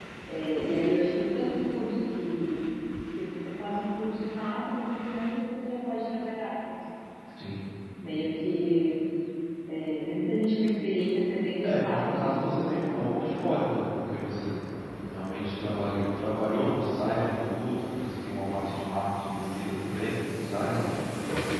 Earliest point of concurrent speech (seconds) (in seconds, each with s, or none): 11.6 s